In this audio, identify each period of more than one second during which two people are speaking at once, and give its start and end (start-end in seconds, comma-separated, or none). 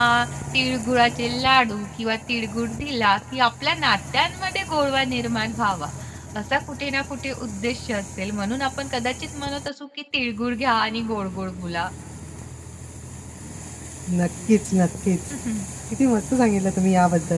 none